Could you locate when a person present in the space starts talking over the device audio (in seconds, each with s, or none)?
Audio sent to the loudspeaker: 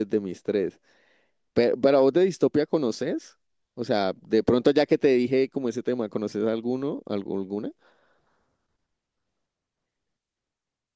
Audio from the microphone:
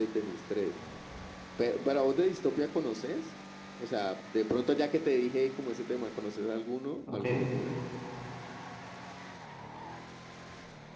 7.0 s